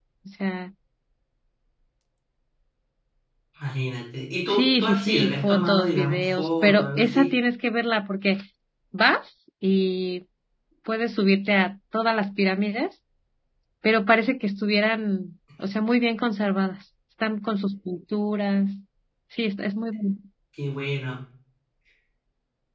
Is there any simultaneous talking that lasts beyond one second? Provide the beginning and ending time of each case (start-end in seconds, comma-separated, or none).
4.5-7.3